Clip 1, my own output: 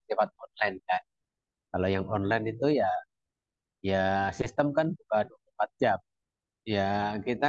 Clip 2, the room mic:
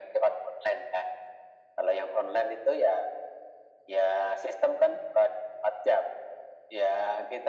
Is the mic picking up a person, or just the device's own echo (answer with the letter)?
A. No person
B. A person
A